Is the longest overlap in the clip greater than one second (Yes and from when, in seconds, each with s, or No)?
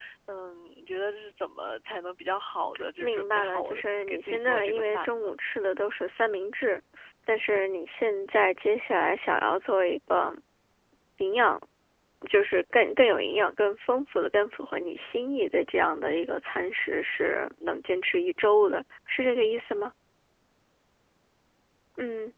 Yes, from 2.8 s